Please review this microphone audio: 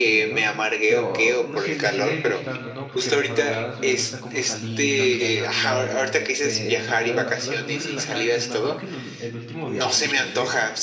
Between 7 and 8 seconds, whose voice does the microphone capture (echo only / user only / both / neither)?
both